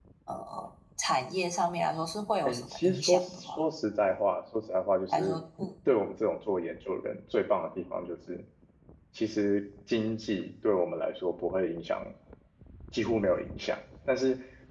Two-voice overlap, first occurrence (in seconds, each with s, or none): 2.5 s